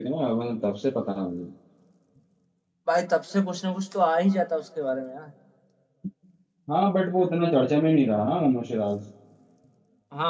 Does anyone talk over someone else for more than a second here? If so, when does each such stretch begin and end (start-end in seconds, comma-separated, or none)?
none